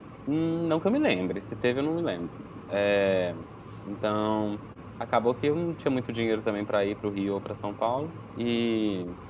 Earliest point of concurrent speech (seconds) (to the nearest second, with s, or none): none